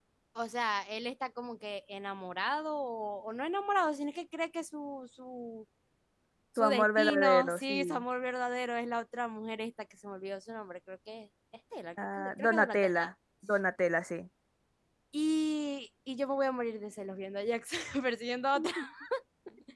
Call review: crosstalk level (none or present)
present